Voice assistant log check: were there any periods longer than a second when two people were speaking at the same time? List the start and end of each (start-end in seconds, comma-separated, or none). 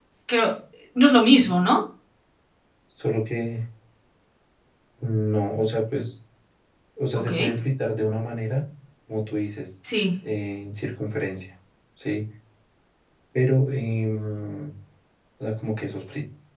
none